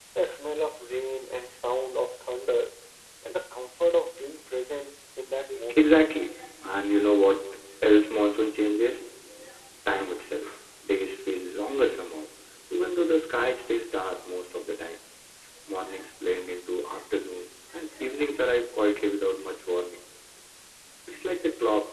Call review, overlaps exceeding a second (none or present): none